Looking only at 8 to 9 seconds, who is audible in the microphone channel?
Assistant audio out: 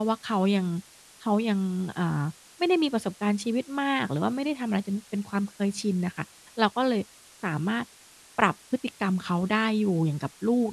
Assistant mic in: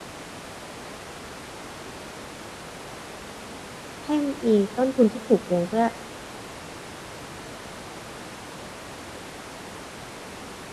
neither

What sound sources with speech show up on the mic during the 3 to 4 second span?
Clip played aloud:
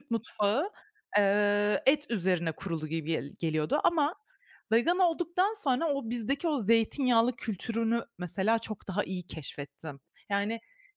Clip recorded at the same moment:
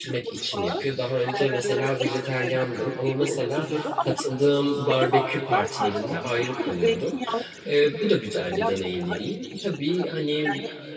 both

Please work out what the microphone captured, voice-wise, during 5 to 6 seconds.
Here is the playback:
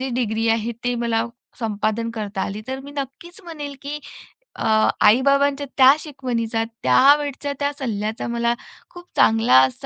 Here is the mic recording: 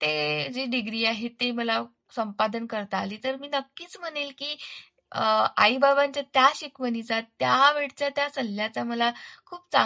echo only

